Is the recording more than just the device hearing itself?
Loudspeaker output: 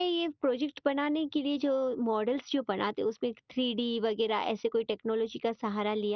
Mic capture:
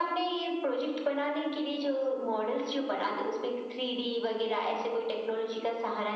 No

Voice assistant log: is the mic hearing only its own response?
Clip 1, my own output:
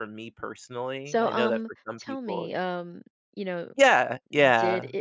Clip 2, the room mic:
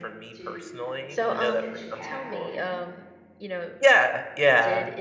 No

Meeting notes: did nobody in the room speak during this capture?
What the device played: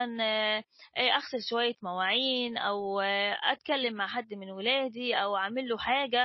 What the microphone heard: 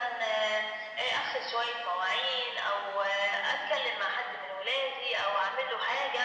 Yes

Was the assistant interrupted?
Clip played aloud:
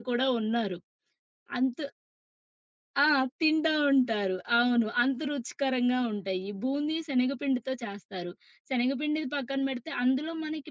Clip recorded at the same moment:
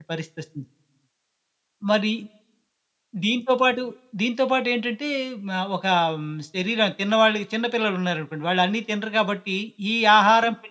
Yes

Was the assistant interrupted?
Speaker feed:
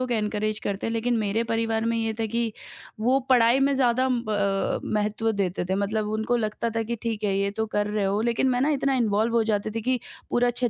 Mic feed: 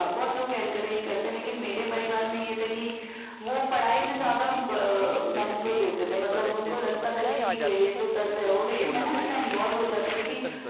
Yes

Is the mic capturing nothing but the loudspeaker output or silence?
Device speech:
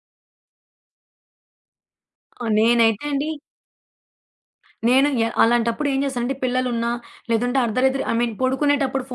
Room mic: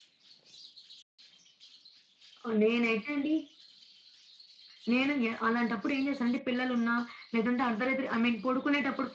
Yes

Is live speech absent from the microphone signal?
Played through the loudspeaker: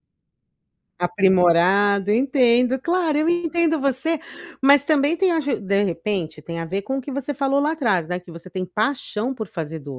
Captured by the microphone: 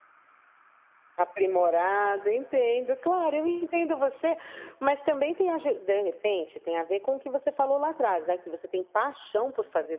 Yes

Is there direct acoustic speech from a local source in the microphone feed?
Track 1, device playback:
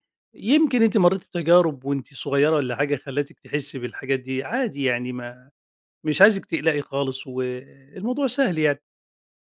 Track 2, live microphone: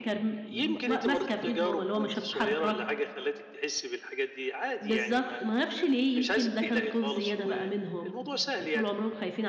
Yes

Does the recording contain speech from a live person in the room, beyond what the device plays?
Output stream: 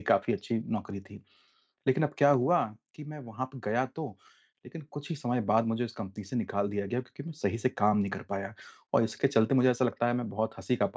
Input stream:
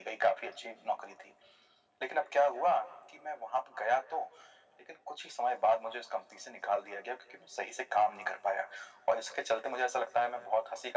No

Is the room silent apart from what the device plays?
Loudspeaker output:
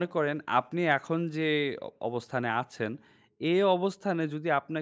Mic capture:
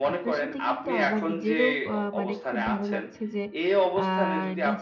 No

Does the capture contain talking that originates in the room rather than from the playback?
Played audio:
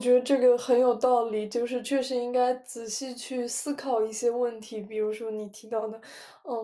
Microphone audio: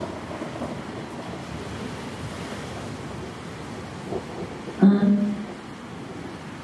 Yes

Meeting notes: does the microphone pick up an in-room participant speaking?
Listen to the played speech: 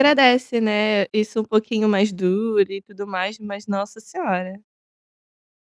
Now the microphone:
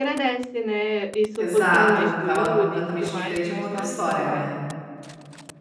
Yes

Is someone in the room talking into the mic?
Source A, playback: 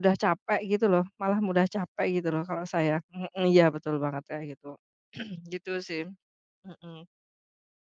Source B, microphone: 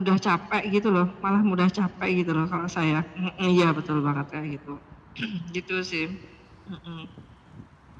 No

